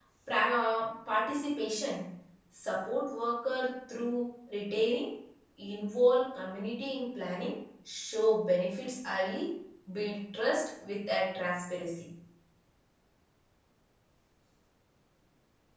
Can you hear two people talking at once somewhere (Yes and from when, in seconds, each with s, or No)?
No